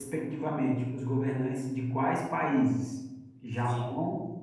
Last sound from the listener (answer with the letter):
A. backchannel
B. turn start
A